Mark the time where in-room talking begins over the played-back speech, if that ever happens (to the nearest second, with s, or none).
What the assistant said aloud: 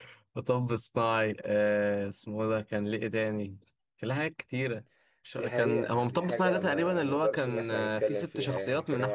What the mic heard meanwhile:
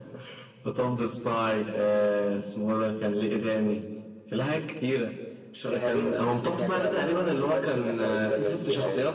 none